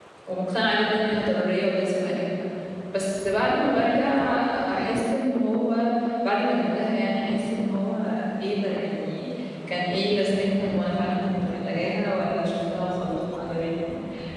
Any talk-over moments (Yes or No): No